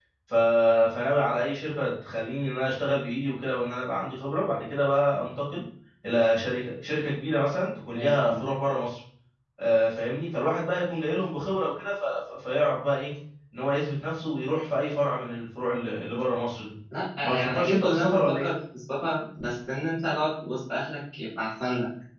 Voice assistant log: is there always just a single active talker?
No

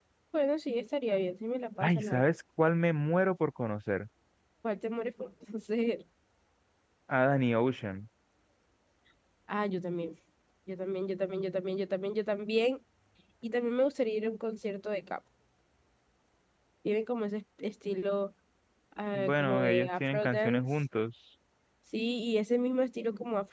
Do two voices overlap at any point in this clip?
Yes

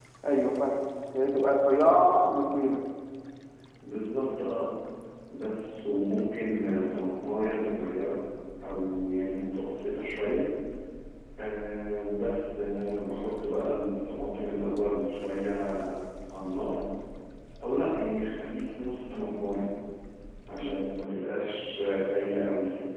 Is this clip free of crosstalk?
Yes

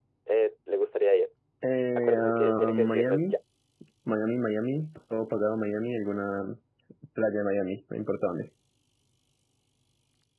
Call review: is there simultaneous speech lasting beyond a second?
Yes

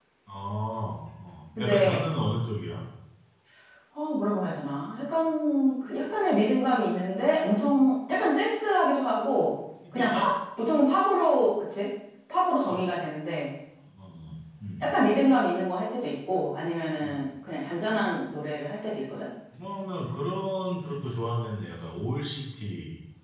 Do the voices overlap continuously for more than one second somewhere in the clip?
No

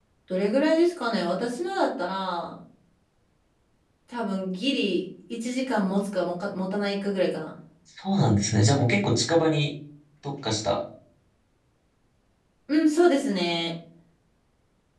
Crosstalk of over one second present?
No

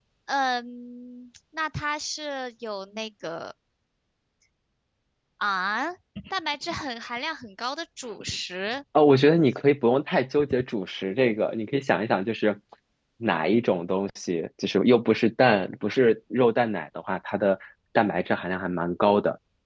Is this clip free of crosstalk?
Yes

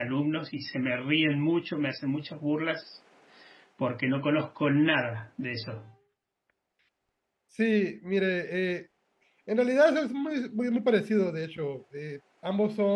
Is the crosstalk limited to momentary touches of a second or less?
Yes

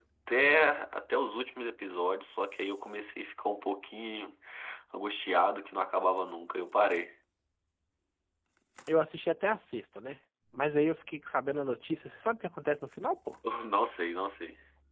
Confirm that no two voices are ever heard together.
Yes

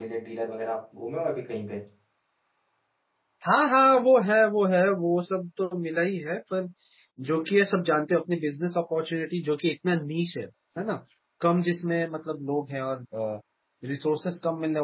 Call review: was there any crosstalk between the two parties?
No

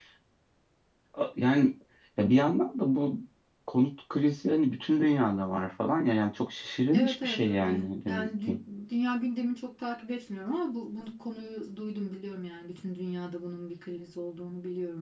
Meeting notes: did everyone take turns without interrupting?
No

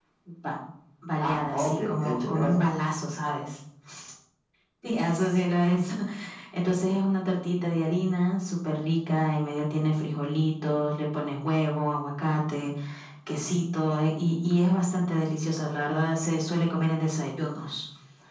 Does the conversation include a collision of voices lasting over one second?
Yes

